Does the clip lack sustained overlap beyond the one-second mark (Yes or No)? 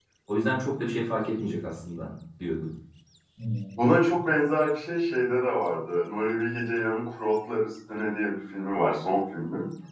Yes